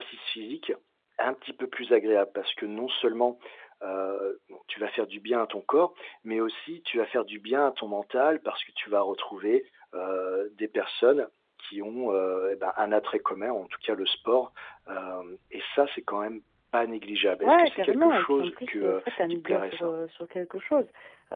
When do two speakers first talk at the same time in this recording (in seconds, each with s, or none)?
17.4 s